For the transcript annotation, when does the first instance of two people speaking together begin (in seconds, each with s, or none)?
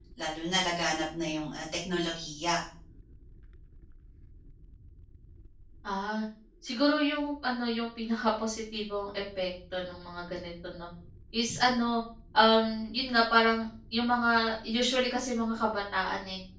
none